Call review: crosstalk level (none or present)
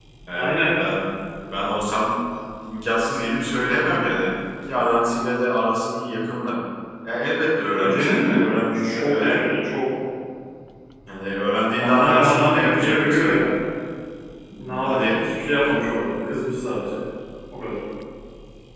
present